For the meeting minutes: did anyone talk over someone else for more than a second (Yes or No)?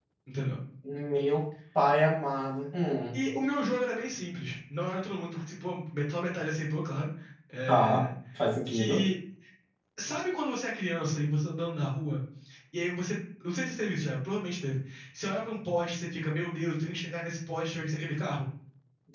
No